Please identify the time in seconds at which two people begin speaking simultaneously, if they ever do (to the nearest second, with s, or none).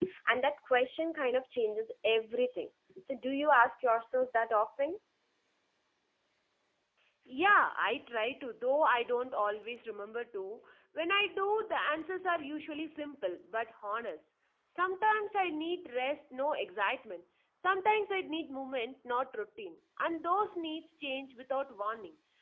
none